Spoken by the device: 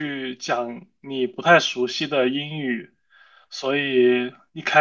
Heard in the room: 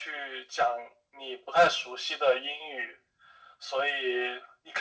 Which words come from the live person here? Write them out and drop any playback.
none

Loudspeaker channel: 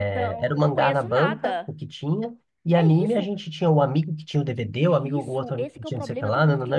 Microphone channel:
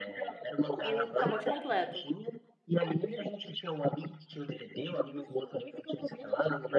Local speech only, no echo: o pacote completo.

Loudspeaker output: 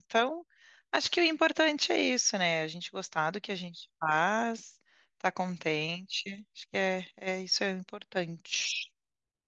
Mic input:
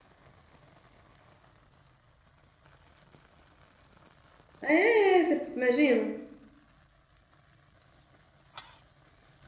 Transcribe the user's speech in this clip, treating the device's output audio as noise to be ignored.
É, você imagina?

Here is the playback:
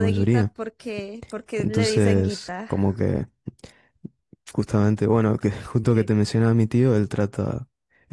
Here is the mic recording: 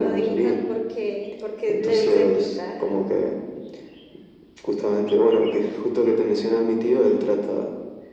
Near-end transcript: none

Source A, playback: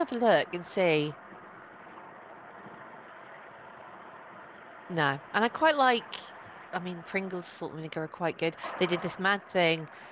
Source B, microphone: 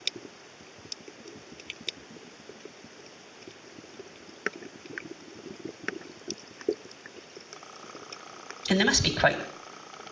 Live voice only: And they must be quite

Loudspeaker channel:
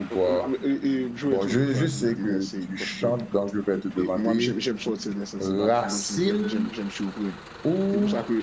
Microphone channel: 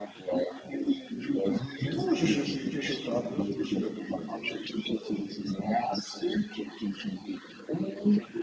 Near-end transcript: bon, je, je suis, je suis toujours, je suis, je suis debout maintenant.

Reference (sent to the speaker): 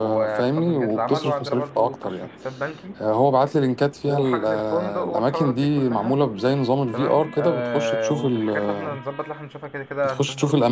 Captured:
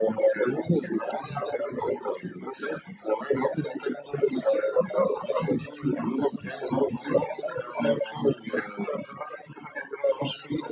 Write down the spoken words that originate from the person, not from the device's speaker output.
none

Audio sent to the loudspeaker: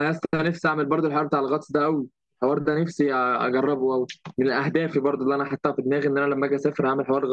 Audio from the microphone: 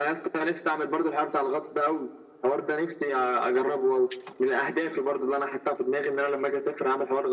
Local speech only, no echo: none

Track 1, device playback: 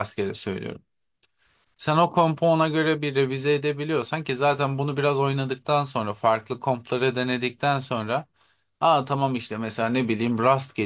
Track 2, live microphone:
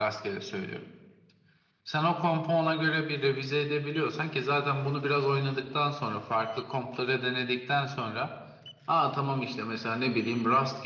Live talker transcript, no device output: none

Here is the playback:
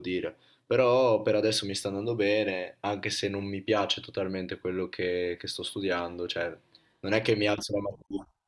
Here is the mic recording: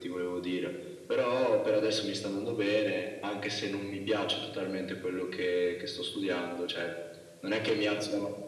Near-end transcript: none

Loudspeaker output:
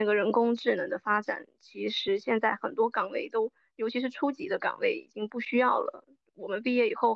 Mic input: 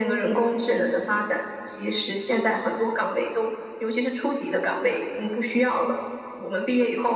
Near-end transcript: none

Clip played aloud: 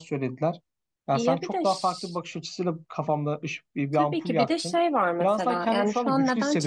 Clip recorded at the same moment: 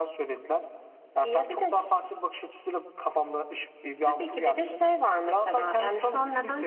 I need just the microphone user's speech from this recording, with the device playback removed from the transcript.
none

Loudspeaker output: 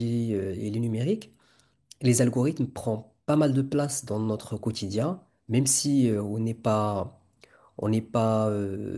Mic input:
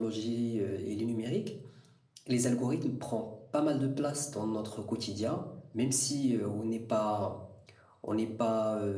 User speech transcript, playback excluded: none

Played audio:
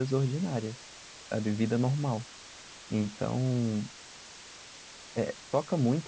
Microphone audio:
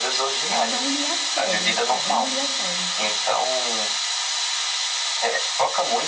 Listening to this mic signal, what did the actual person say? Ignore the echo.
Eu não li a série. É, eu não li a série.

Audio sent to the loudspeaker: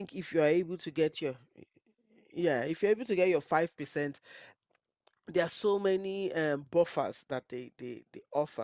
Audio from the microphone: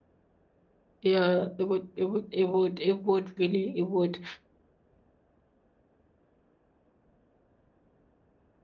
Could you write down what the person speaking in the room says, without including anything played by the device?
Yeah, it would, it would, it would, it would really, it would,

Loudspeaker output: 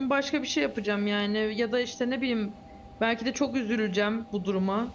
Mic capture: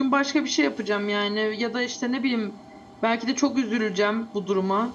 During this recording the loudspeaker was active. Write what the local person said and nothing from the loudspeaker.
none

